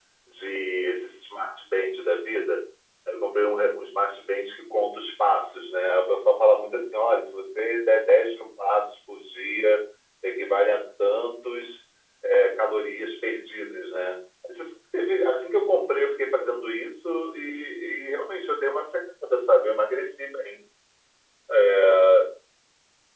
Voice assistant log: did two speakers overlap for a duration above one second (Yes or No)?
No